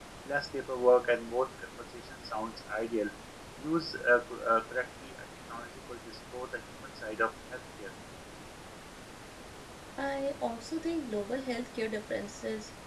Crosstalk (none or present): none